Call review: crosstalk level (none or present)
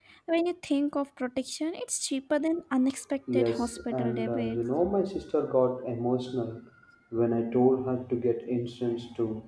present